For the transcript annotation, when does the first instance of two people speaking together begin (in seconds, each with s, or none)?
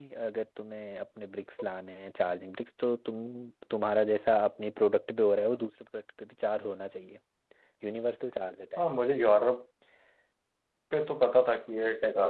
none